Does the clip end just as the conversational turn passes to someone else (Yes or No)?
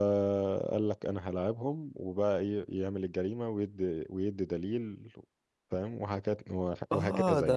Yes